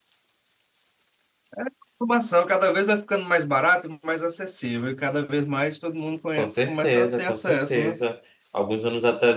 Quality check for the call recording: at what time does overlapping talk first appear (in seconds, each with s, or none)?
6.4 s